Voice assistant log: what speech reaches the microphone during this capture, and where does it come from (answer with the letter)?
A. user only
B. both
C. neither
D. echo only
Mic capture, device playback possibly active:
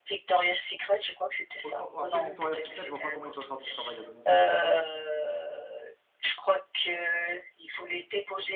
B